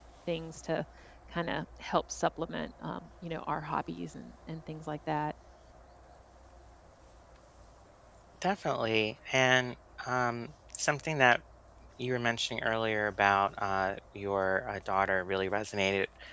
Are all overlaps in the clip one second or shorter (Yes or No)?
Yes